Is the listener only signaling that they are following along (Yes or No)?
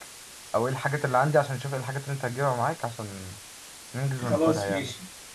No